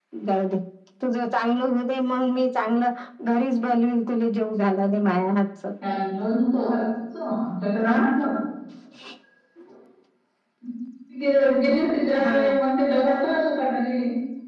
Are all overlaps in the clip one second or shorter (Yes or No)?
Yes